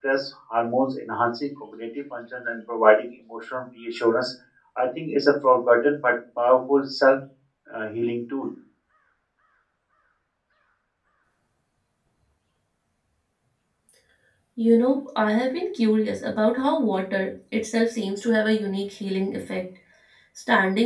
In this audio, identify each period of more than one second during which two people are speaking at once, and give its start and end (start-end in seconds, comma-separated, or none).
none